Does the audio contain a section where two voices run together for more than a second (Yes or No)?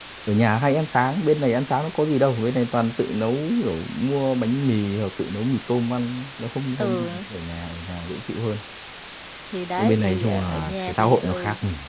Yes